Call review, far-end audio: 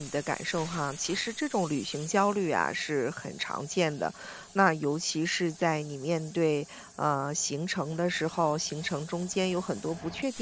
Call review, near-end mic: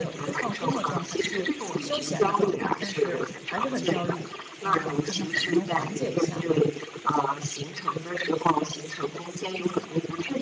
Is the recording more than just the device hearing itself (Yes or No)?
Yes